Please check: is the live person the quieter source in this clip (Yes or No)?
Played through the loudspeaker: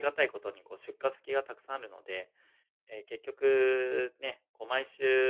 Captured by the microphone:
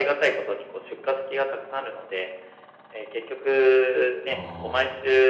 Yes